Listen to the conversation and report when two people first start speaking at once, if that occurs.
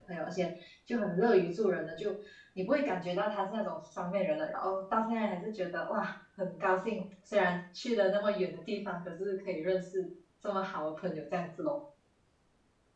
none

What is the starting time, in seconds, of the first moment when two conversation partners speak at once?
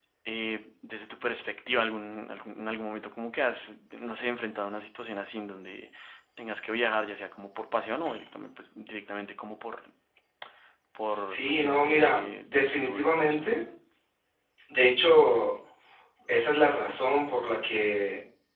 11 s

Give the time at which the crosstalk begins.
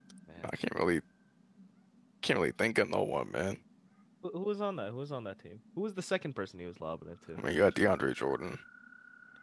none

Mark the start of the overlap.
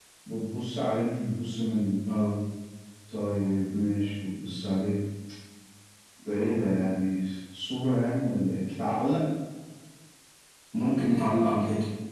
none

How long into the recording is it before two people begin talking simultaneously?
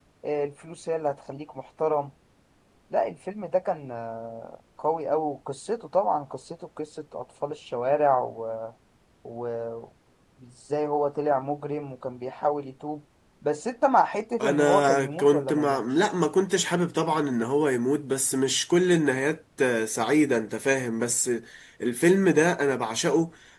14 s

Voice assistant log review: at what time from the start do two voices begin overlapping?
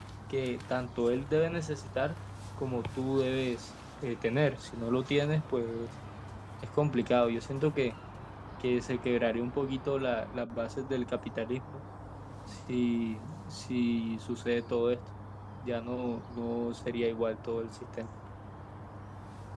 none

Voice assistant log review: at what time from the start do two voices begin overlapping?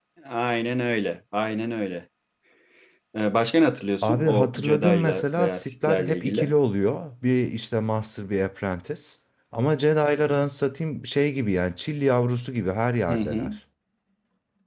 4 s

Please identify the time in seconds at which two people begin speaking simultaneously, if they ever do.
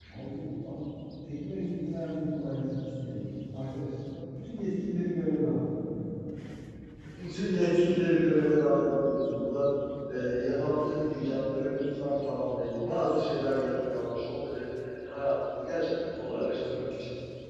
none

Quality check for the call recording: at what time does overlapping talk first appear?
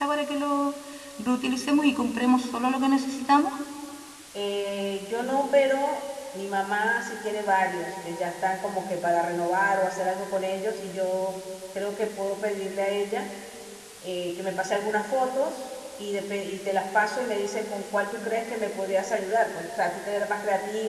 none

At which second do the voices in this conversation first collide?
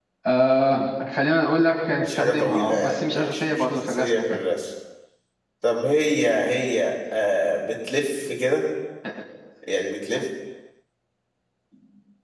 2 s

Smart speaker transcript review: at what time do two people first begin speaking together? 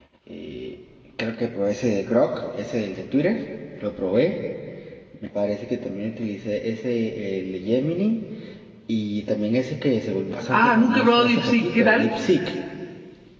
11 s

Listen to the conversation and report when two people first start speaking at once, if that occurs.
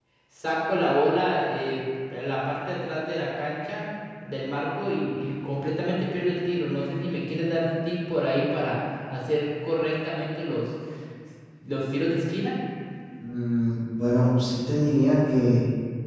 none

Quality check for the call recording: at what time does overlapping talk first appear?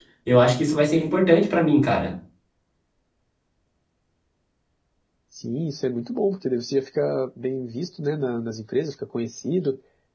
none

